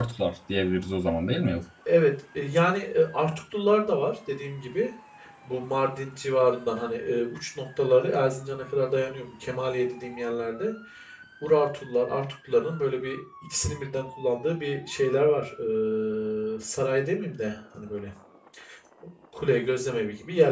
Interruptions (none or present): none